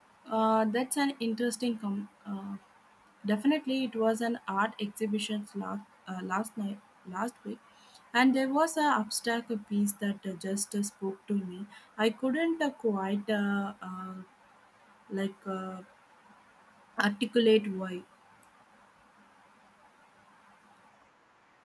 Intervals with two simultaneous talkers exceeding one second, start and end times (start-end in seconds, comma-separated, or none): none